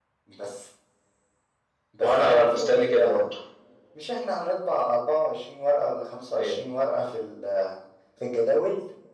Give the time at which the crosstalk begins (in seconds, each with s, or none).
2.0 s